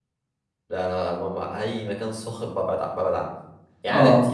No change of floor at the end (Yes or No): Yes